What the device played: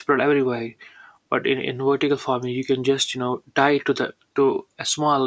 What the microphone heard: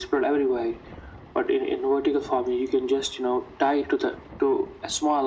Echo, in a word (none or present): present